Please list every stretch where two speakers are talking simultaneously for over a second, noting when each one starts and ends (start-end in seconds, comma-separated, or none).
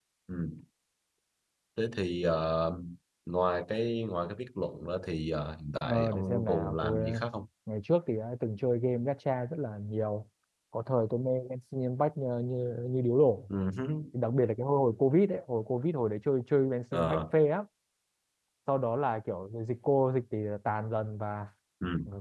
5.8-7.2